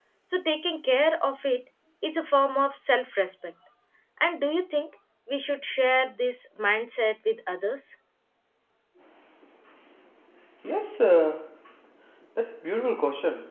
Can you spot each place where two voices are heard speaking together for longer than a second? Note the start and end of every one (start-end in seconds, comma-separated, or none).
none